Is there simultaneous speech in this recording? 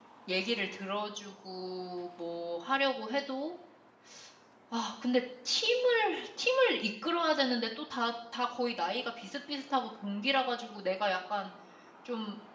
No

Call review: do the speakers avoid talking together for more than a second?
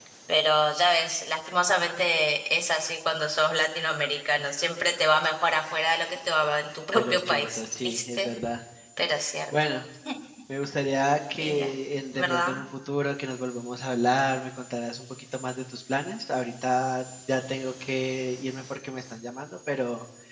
No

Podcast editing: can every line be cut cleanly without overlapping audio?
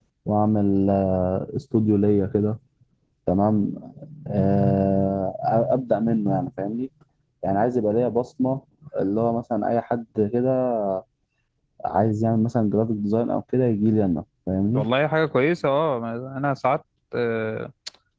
Yes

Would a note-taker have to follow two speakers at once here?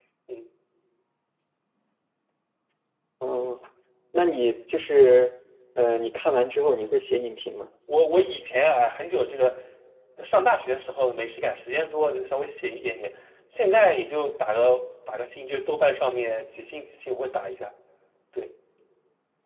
No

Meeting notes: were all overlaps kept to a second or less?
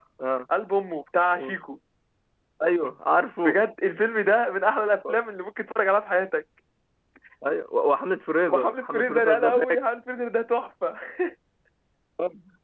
No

